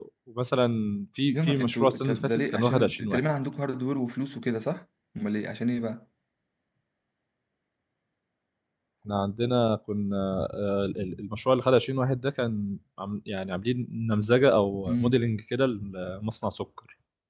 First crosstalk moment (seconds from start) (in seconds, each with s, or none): 1.3 s